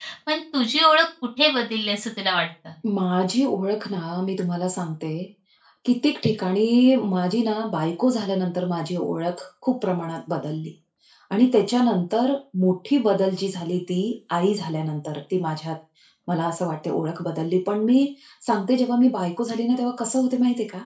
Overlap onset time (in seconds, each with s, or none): none